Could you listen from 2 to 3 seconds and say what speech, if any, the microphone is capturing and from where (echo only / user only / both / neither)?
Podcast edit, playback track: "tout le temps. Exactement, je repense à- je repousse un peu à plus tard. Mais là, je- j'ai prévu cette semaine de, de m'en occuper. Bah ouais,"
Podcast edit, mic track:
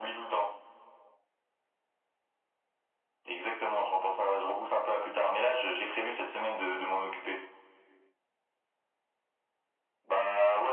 neither